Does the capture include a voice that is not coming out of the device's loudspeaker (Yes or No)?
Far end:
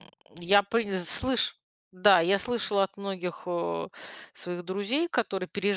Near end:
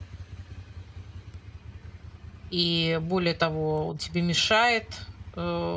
Yes